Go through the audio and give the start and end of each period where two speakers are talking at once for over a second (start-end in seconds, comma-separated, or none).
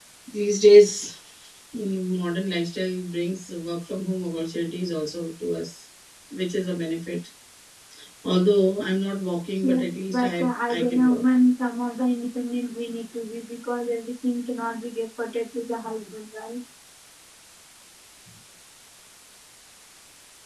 9.6-11.2